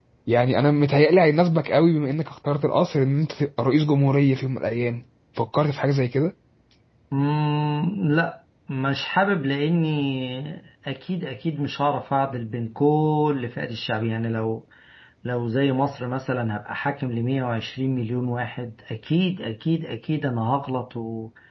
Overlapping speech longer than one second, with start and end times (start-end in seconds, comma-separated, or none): none